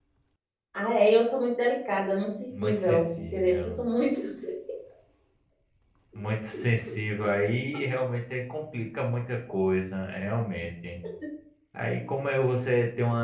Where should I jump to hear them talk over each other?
2.5 s

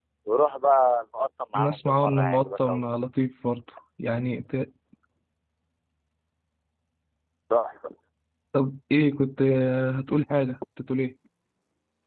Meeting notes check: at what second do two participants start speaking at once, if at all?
1.5 s

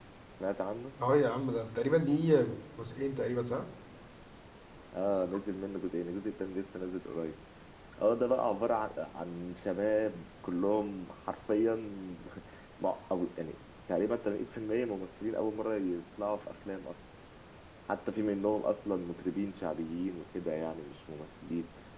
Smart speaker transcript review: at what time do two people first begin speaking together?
none

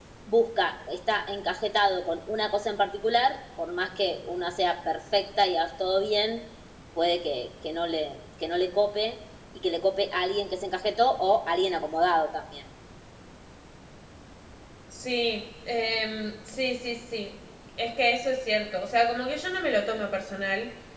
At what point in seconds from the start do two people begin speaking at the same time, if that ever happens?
none

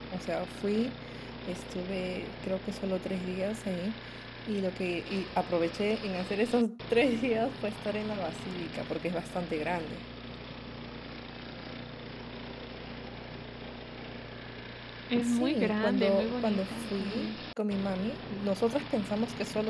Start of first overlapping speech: 15.2 s

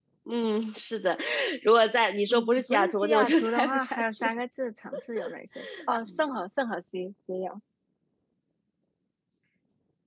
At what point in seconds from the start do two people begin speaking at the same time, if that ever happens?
2.3 s

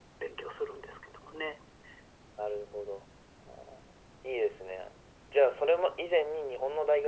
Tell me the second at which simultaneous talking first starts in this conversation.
none

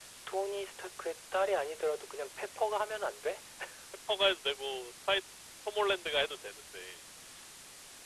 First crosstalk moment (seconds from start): none

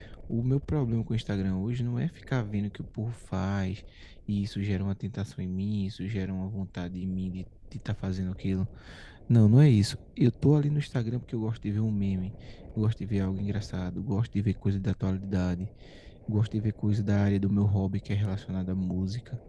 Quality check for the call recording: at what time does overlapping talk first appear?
none

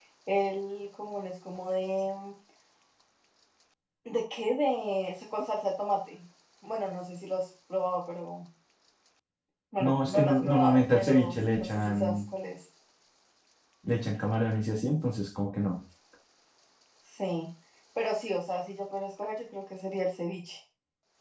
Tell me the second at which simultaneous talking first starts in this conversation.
9.8 s

